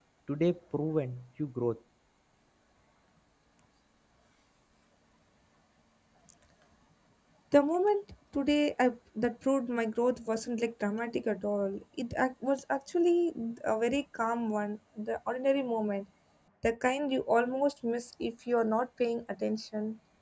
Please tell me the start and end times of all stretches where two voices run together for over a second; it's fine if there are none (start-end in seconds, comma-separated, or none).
none